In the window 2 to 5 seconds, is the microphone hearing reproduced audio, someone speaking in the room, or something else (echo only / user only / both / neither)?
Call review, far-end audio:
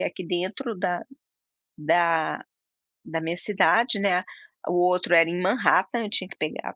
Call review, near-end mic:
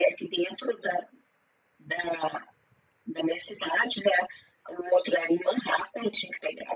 echo only